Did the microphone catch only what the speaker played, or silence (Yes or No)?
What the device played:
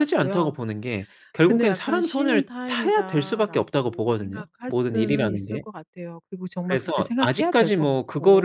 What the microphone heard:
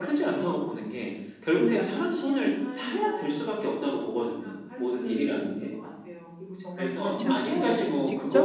No